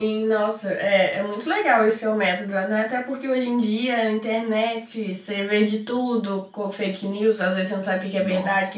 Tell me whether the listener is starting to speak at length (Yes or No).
No